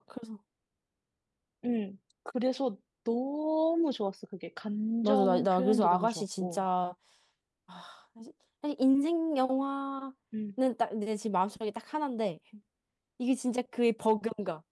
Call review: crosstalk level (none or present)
present